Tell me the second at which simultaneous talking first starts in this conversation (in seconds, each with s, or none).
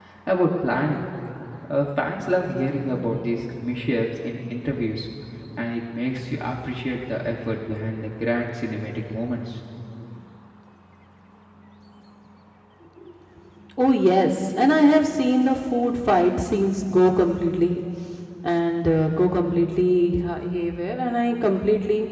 none